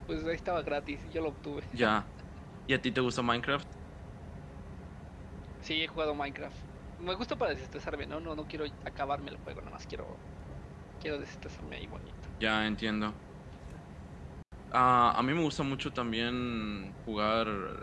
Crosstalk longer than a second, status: none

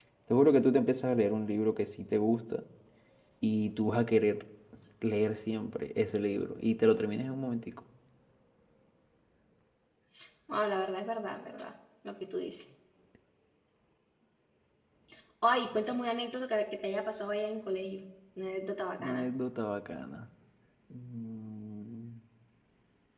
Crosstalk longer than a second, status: none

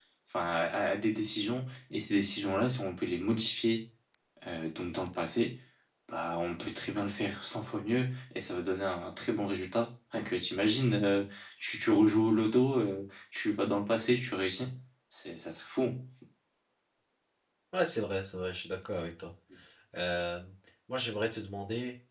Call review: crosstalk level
none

